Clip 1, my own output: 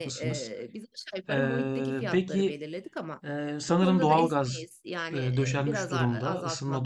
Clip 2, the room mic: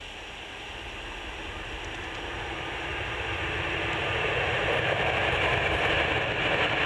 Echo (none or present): none